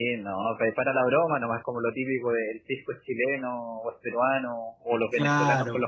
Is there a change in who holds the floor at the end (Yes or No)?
No